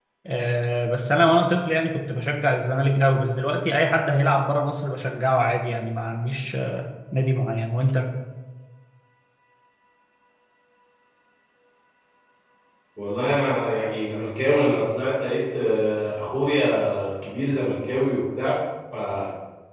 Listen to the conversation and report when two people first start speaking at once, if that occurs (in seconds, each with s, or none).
none